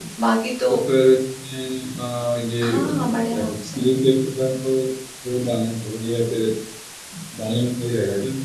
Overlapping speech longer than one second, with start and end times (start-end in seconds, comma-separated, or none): 2.6-3.8